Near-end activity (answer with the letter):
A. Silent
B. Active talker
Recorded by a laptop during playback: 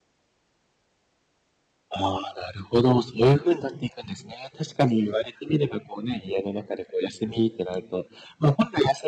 A